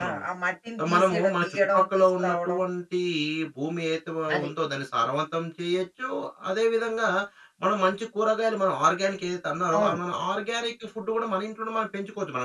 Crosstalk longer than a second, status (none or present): present